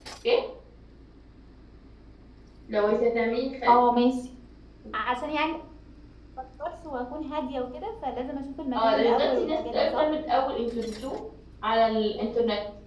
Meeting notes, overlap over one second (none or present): present